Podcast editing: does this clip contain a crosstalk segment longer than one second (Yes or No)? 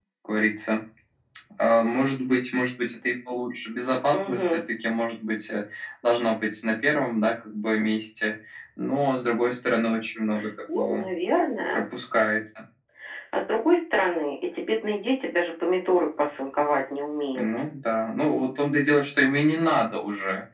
No